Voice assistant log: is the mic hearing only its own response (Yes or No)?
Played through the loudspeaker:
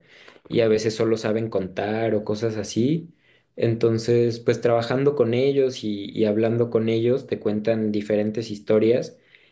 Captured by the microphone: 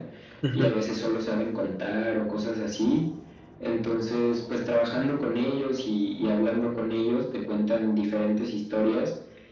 No